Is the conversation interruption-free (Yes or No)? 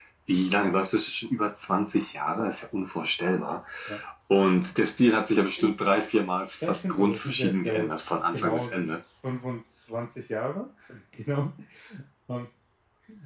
No